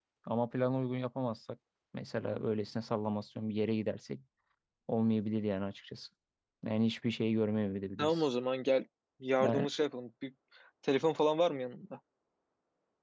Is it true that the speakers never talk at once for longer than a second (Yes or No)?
Yes